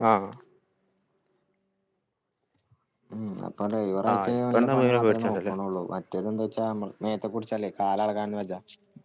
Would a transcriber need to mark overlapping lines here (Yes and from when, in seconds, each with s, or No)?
Yes, from 4.1 s